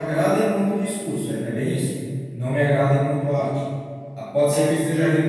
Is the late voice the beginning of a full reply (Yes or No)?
No